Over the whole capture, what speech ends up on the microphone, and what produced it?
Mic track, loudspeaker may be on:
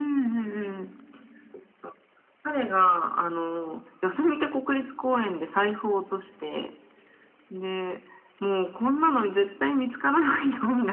echo only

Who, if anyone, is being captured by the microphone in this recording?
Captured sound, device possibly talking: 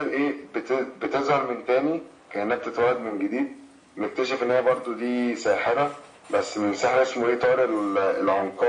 echo only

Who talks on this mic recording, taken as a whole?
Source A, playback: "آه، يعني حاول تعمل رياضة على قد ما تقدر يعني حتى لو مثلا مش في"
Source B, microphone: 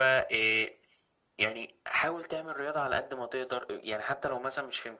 echo only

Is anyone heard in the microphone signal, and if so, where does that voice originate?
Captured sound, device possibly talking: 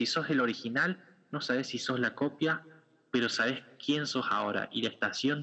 echo only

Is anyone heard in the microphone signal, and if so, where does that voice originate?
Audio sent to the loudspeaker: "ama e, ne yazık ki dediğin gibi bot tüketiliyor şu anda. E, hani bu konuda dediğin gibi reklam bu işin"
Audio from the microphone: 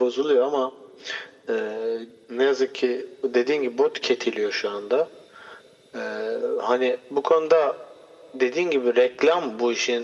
echo only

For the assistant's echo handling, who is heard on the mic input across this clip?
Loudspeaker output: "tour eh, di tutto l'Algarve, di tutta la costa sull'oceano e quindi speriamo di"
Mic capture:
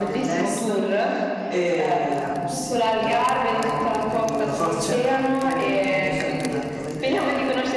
both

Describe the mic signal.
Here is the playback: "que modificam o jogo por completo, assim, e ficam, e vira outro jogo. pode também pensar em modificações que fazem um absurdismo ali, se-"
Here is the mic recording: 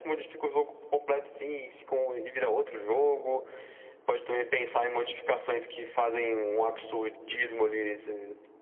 echo only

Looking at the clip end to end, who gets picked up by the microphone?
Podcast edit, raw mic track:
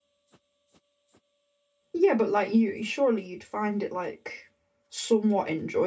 user only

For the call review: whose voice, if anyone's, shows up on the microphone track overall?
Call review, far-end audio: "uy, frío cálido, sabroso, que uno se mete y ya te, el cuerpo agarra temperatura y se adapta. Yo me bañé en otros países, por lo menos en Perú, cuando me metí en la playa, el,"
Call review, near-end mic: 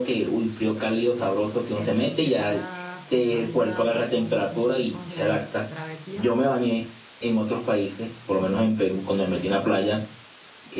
both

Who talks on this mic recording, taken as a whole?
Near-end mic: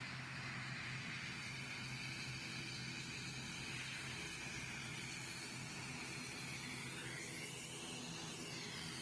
neither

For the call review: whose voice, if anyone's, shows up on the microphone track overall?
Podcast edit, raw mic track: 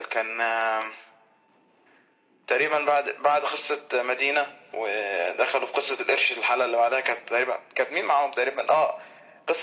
echo only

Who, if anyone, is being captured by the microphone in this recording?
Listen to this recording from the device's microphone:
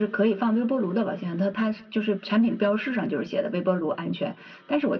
echo only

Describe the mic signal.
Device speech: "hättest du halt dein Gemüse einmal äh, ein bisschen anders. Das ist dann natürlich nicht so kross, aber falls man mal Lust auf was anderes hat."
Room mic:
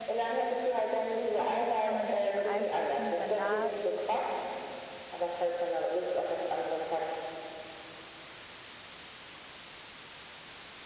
both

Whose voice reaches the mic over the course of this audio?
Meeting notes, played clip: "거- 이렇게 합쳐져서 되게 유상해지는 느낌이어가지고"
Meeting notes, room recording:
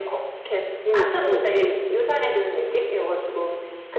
both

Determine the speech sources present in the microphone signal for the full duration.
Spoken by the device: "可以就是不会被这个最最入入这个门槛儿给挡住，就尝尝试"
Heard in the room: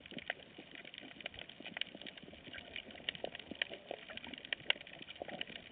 neither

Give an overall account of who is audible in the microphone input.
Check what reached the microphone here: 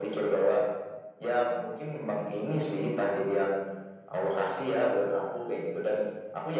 echo only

